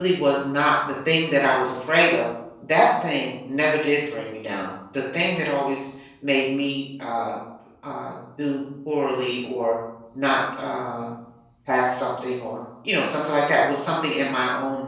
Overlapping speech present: No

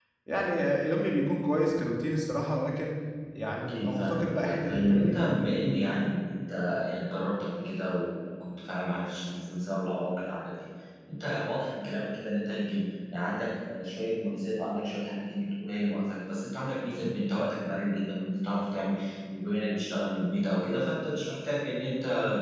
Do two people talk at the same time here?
Yes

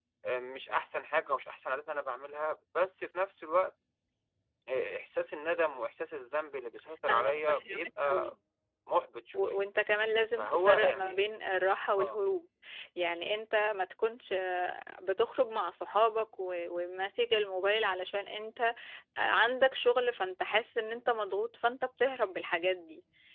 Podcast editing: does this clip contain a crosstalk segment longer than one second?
Yes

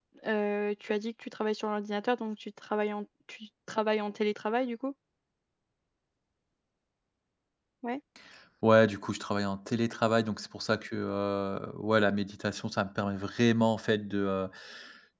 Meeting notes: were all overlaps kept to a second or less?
Yes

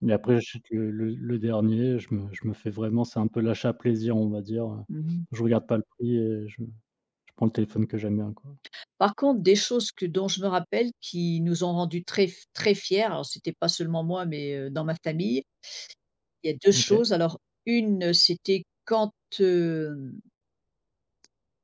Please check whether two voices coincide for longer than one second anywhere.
No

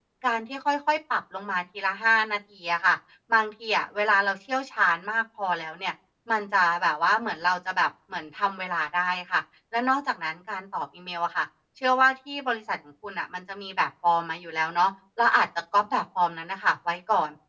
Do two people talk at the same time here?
No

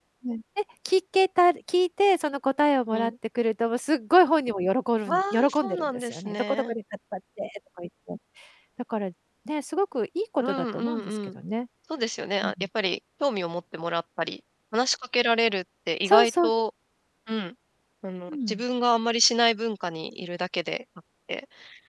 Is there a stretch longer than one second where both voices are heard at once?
Yes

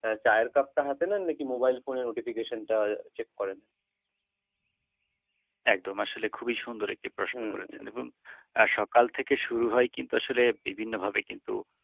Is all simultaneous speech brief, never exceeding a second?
Yes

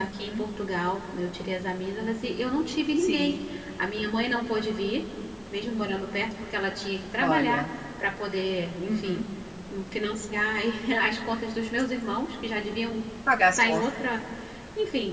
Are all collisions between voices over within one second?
Yes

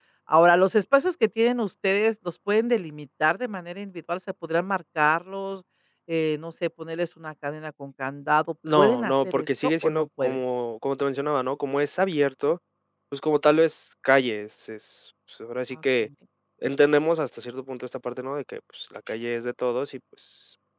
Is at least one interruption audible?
Yes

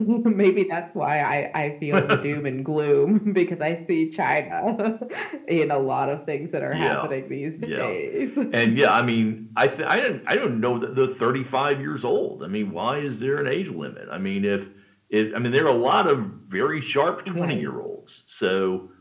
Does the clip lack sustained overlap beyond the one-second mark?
Yes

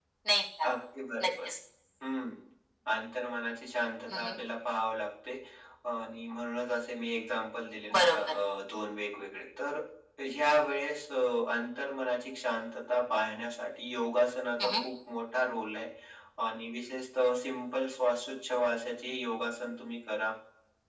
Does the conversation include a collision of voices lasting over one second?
No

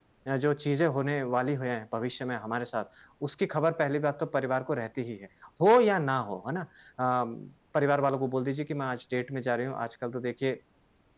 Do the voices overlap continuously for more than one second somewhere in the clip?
No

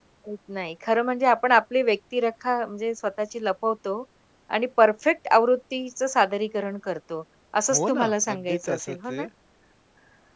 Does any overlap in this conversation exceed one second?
Yes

